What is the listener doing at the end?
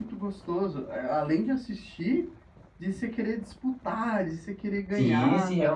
taking over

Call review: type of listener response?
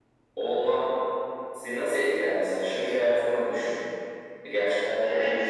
taking over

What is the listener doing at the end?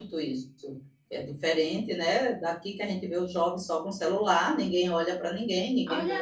taking over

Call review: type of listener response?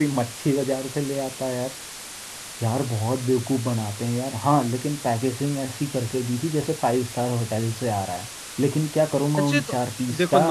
taking over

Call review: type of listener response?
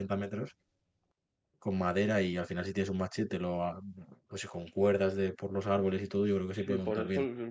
taking over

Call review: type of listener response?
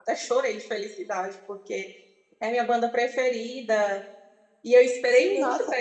taking over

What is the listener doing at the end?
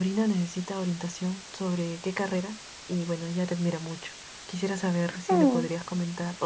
listening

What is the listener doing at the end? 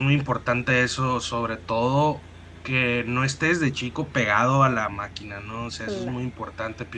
listening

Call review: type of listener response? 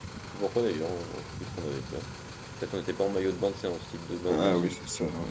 taking over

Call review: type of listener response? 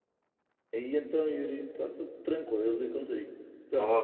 taking over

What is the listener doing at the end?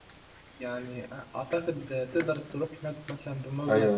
taking over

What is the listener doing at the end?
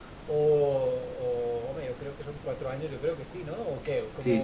taking over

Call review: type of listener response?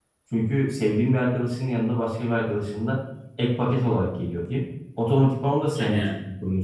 listening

